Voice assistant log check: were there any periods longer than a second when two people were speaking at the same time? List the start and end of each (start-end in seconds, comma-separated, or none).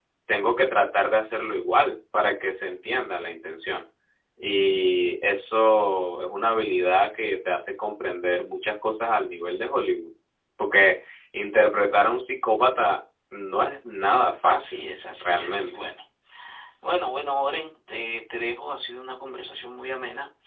14.4-15.7